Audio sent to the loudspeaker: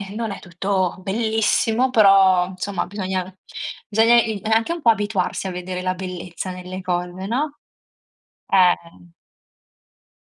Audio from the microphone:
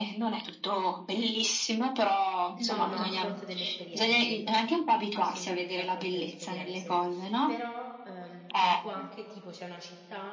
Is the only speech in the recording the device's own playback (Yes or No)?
No